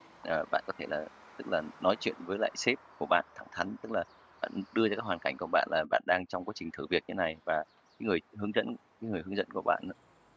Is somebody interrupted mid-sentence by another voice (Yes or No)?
No